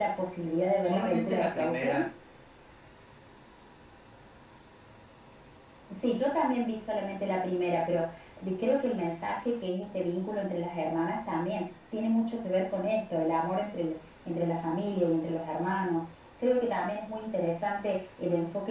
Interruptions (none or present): present